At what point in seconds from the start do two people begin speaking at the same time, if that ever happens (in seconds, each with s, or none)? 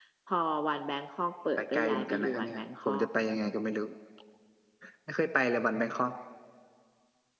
1.6 s